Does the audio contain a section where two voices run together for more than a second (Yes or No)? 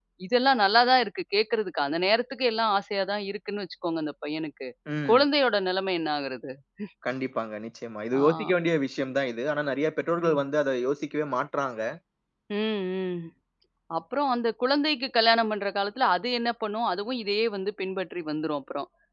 No